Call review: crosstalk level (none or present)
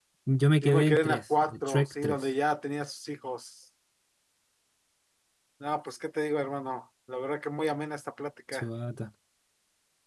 present